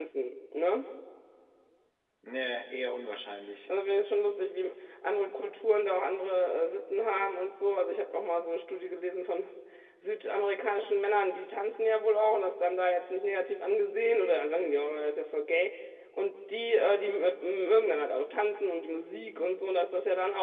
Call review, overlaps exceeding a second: none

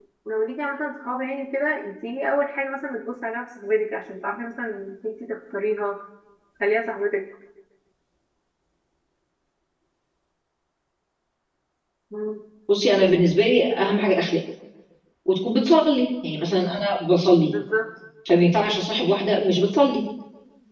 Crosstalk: none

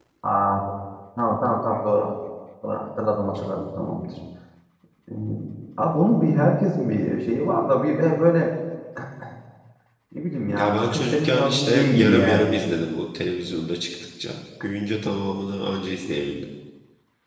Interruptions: present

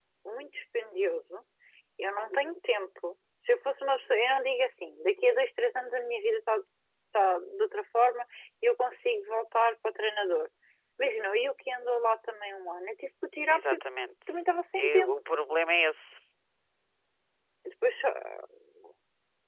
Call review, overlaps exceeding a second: none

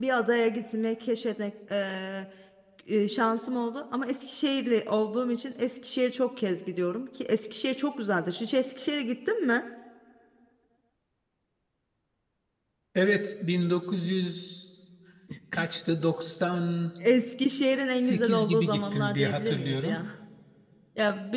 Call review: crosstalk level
present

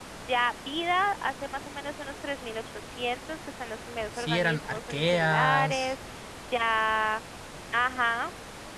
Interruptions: present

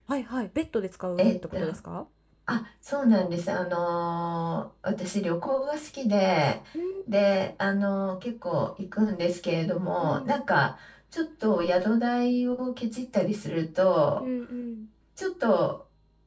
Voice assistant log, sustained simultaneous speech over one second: none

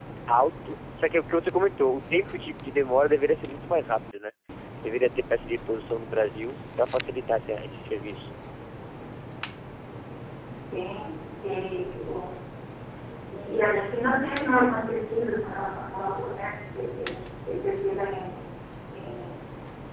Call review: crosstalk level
none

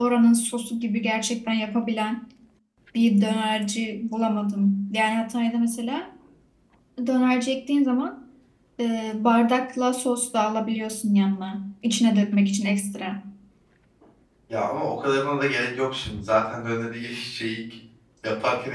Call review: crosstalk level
none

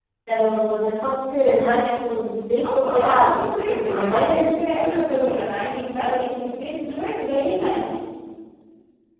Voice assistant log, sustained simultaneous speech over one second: present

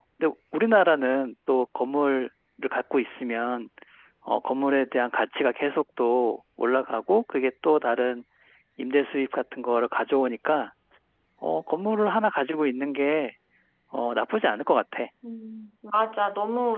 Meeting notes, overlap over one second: none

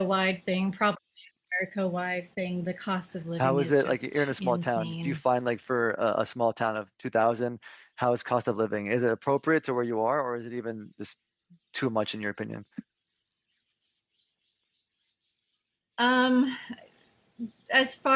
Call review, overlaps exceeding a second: present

